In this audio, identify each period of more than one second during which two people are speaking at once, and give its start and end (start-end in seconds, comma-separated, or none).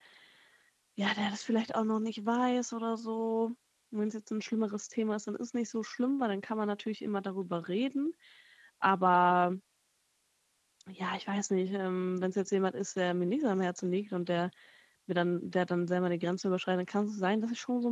none